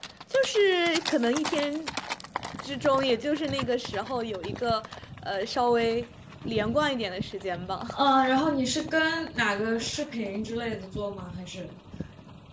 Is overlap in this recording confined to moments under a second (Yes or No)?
Yes